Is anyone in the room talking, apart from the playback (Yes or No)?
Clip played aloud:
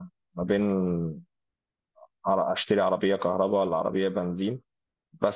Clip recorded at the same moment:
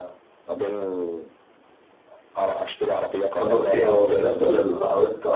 Yes